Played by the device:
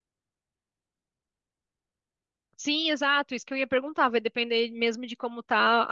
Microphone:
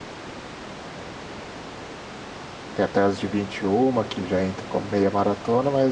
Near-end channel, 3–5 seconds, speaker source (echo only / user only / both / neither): user only